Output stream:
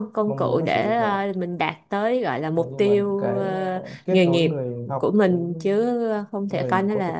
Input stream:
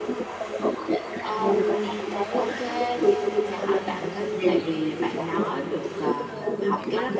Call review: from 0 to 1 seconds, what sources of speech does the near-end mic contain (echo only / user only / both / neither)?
echo only